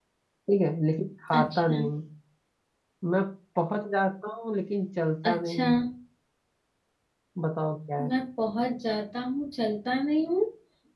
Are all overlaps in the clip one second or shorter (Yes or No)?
Yes